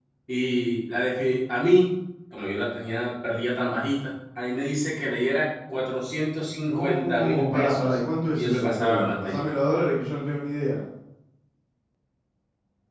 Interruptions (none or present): present